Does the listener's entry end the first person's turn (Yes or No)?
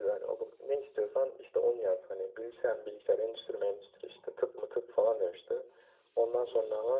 No